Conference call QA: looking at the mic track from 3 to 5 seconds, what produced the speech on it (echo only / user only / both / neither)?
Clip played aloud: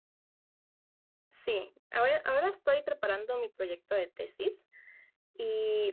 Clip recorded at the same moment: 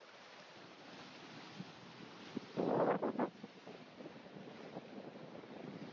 neither